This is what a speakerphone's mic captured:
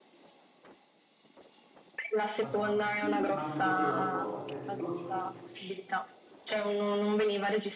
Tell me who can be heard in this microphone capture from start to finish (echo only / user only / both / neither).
both